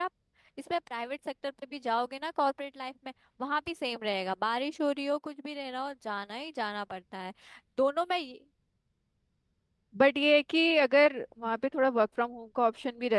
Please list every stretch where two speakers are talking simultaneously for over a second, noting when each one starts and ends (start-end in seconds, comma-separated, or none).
none